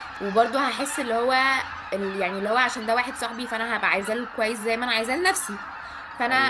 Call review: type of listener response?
listening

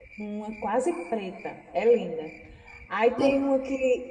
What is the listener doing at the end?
listening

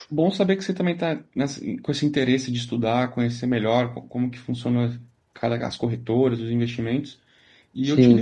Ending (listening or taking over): listening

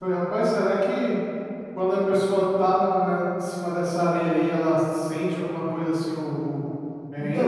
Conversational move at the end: taking over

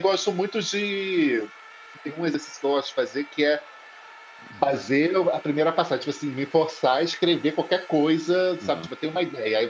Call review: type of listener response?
listening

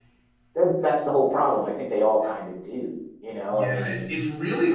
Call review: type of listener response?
taking over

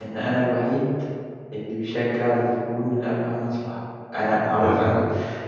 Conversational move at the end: listening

